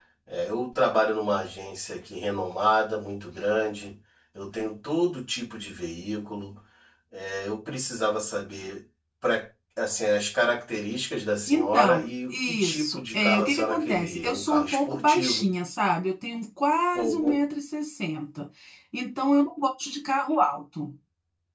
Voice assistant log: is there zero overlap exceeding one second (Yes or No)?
No